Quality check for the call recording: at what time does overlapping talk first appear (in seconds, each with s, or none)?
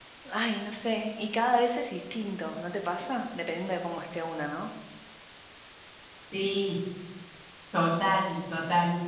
none